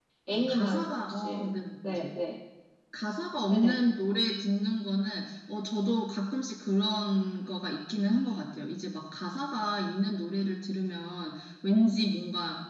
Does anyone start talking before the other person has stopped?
Yes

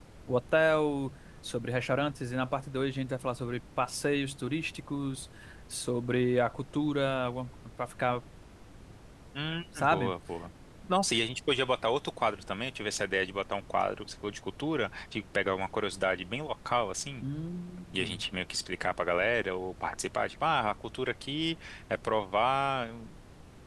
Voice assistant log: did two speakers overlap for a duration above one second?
No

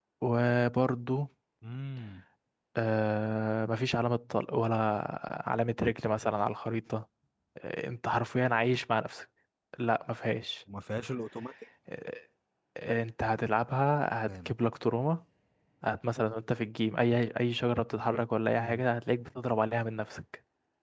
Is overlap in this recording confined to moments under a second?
Yes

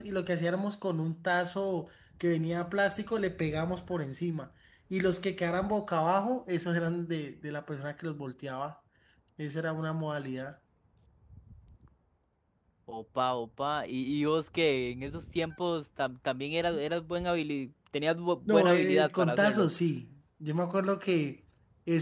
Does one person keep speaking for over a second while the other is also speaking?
Yes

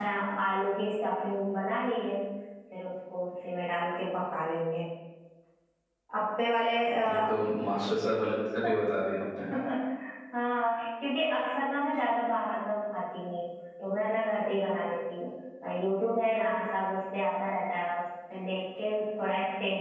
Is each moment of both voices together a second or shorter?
Yes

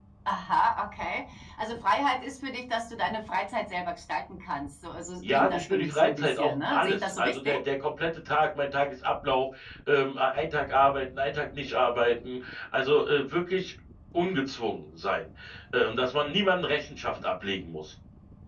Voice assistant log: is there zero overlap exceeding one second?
No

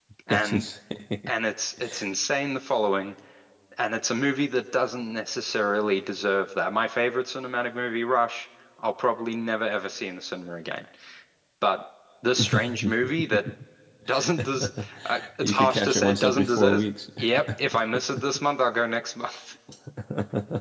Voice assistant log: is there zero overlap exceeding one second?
No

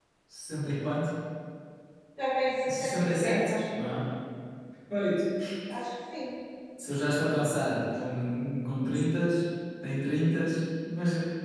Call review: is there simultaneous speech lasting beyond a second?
Yes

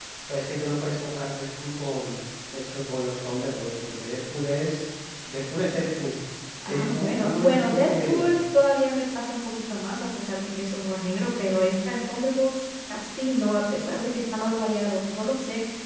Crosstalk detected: Yes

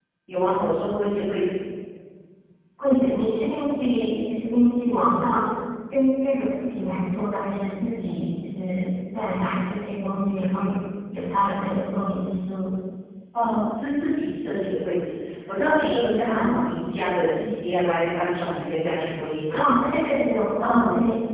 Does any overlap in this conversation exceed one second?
No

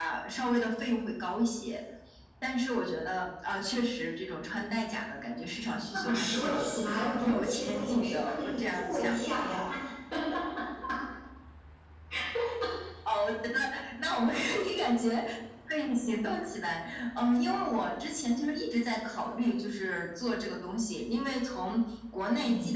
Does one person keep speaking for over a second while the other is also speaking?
Yes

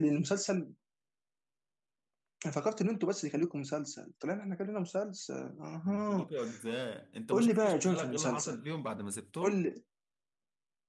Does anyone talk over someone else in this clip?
Yes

